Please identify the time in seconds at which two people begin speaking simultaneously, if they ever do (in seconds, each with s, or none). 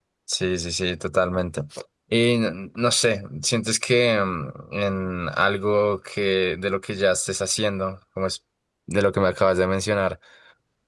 none